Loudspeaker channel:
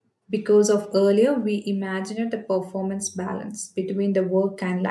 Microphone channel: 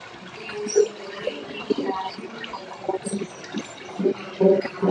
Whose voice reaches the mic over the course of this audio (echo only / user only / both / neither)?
echo only